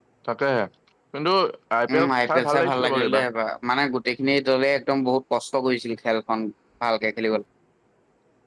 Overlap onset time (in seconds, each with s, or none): 1.9 s